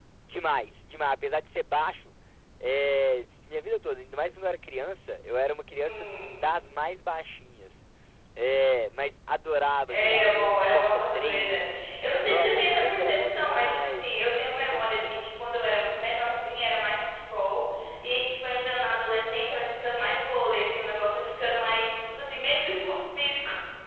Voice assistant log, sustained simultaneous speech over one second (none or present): present